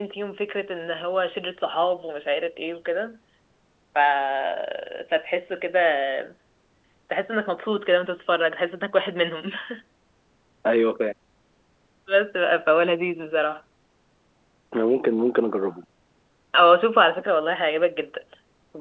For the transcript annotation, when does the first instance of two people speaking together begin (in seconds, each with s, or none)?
none